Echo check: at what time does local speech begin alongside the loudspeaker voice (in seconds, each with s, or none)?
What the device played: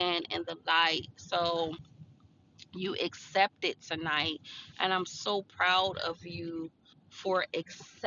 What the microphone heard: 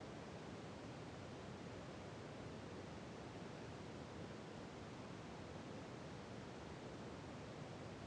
none